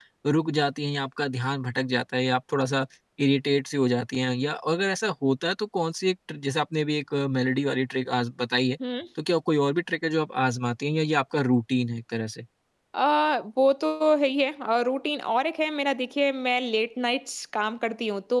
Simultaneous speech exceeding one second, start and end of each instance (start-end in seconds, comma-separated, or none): none